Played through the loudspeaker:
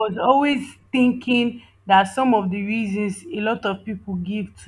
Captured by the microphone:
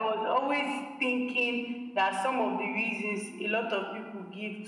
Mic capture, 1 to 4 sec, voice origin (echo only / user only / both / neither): echo only